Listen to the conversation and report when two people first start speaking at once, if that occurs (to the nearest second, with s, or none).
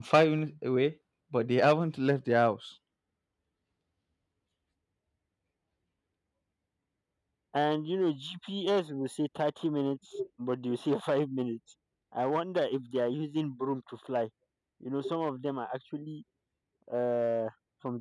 none